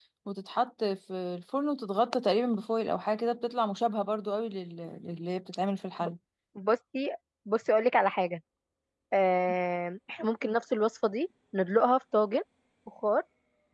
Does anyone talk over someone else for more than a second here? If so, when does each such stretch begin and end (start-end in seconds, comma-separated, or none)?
none